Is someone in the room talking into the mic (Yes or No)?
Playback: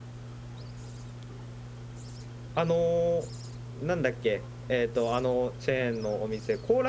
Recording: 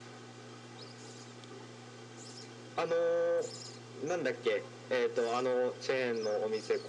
No